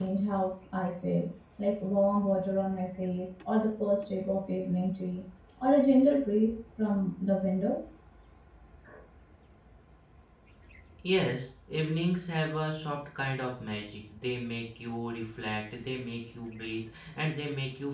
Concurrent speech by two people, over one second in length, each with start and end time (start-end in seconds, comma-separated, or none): none